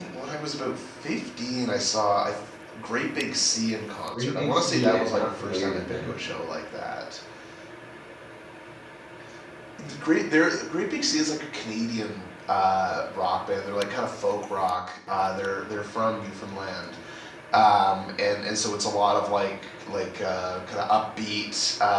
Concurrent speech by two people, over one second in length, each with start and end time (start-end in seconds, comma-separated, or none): 4.1-6.2